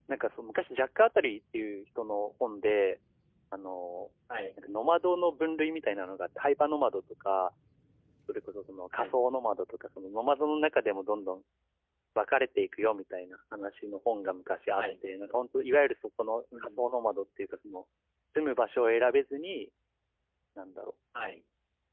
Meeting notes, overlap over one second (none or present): none